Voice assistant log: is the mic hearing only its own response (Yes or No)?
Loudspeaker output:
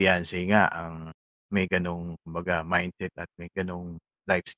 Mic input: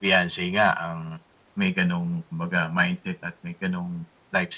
Yes